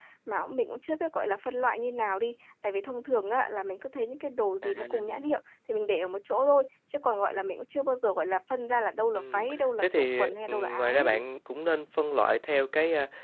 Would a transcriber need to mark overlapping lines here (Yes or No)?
Yes